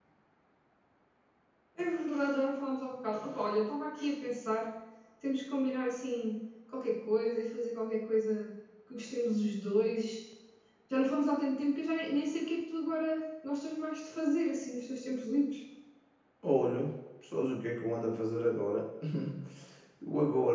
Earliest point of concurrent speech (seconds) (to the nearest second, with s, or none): none